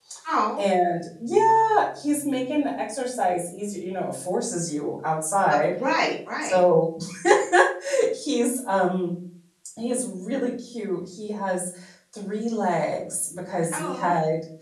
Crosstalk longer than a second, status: none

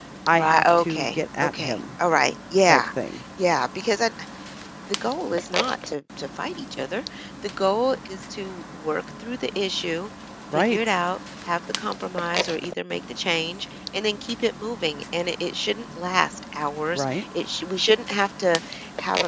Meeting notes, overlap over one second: present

